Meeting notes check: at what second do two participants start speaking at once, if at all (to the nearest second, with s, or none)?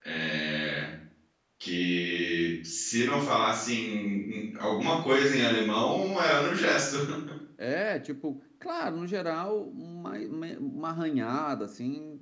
none